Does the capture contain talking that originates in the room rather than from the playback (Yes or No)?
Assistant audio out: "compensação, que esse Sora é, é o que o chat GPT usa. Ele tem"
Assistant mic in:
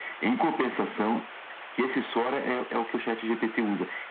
No